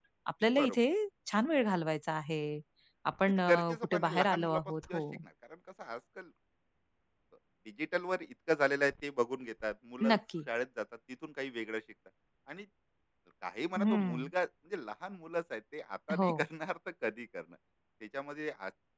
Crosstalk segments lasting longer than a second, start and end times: 3.2-5.0

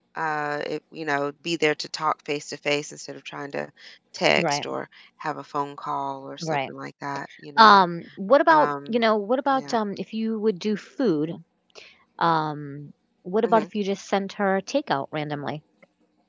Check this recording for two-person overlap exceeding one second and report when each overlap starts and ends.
none

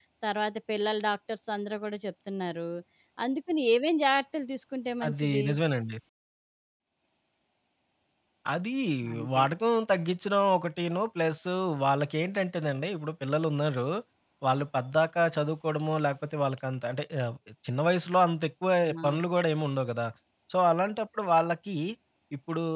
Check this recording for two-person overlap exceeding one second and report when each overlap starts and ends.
none

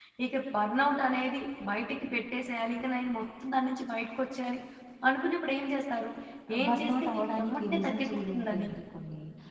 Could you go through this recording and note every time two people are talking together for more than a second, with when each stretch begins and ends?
6.6-8.7

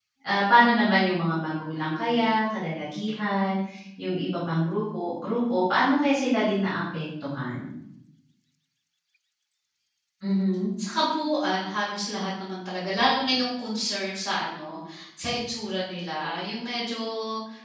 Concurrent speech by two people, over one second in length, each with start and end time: none

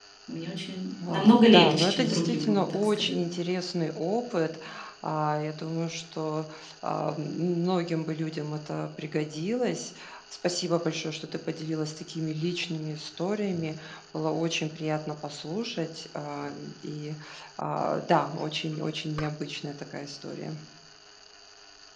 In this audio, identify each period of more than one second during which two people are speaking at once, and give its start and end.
1.1-3.2

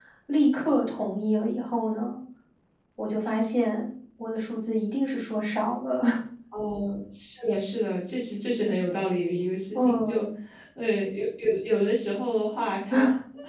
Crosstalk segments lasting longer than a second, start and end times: none

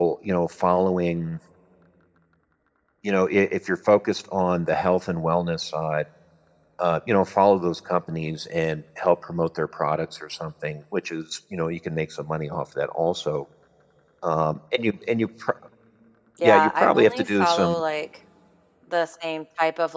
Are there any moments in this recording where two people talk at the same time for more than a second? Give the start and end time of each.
16.4-17.8

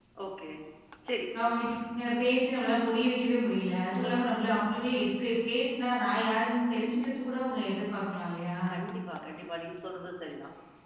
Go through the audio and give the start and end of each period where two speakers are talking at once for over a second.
none

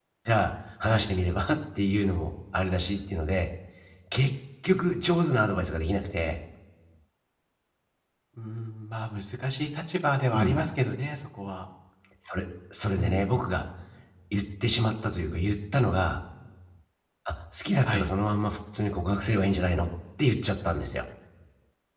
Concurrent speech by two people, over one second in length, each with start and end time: none

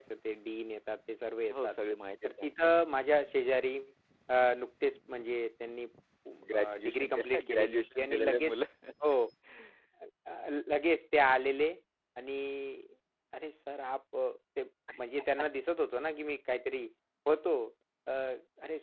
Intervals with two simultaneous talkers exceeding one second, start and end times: 6.5-8.6

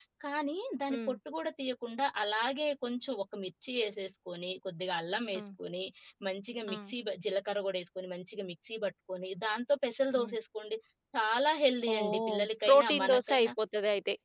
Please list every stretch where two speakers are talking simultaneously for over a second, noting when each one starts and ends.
11.9-13.5

